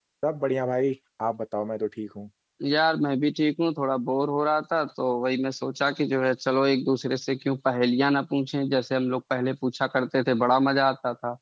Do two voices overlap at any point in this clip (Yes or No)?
No